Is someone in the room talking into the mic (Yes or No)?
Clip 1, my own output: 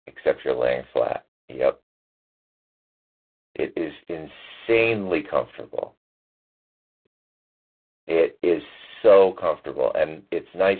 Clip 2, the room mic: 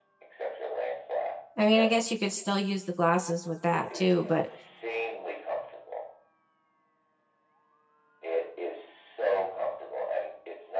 Yes